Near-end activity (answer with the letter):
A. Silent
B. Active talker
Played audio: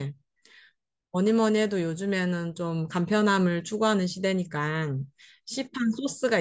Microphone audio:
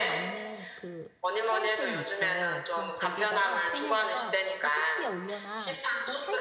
B